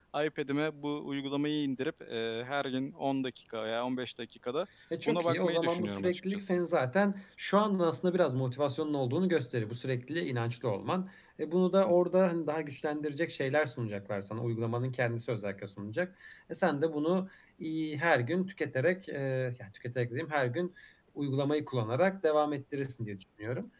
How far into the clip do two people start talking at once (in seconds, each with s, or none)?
5.0 s